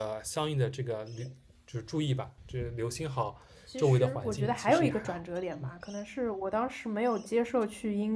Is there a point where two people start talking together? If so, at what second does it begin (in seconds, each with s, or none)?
3.8 s